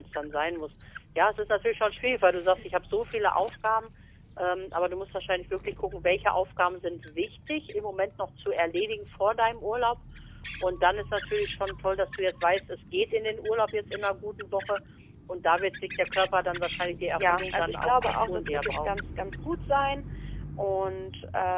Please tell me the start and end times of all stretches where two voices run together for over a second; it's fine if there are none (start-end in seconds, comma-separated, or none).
16.9-18.9